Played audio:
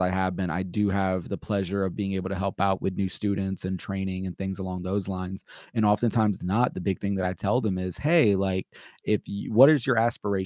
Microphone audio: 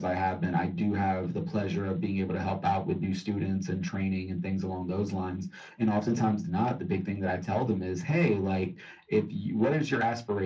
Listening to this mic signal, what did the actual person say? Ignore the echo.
none

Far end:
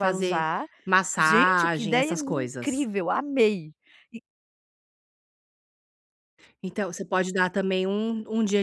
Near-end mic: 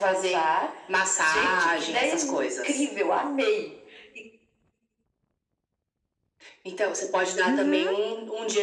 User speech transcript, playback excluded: Uhum,

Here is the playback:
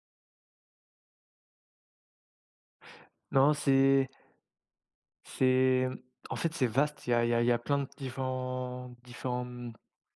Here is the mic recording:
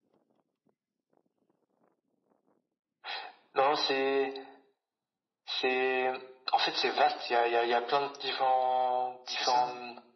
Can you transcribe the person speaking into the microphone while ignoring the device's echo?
c'est ça,

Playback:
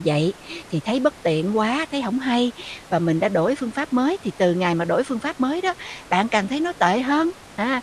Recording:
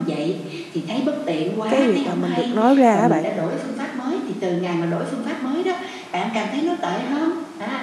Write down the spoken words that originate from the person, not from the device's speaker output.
Cái việc là mình được nói ra á bạn,

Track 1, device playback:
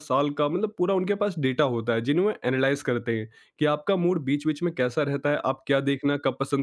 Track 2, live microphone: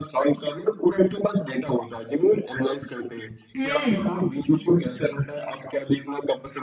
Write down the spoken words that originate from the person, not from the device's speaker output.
हुँ,

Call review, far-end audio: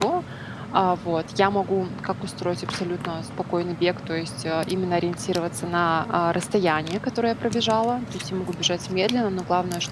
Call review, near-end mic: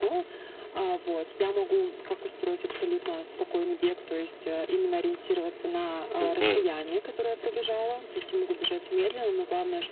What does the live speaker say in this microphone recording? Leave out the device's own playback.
Мгм,

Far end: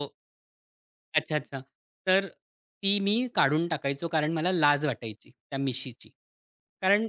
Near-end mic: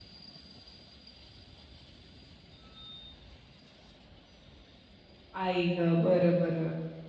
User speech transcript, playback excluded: आई गं! बरं, बरं.

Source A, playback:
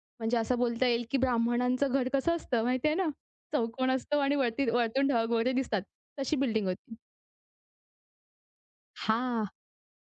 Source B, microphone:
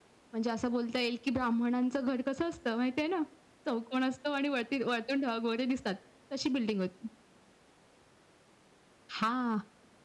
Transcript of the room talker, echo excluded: none

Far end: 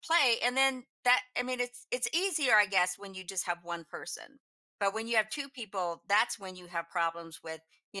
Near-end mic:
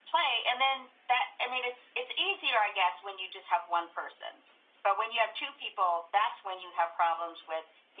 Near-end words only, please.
none

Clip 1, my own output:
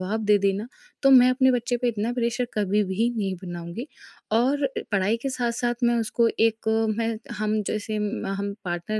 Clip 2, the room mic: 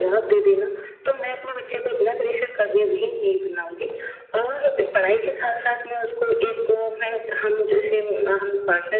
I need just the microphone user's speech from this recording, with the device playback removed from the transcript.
none

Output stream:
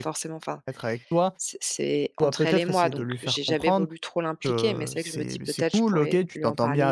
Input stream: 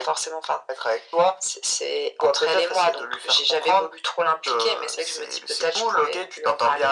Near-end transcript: none

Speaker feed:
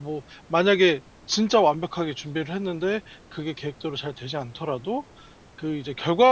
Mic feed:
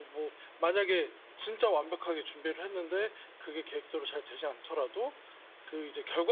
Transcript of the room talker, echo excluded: none

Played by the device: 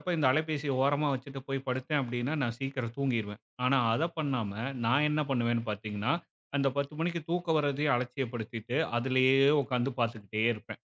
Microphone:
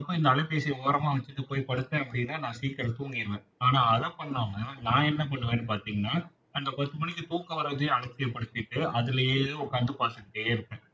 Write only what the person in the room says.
none

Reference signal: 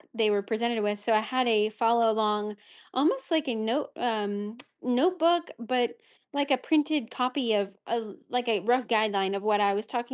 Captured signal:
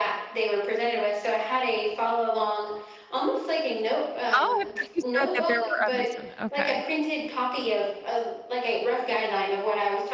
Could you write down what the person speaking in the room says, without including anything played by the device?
Oh, I thought you said that there were others doing it, okay.

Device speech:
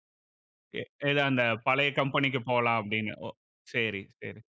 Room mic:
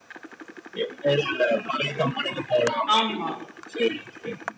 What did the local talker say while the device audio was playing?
ஆமா.

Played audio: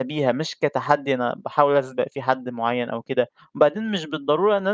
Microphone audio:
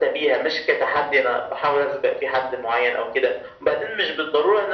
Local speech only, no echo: none

